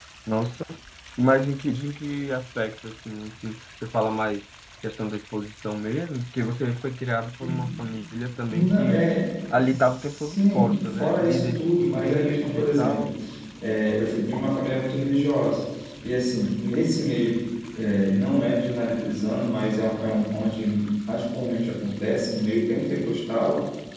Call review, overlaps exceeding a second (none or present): present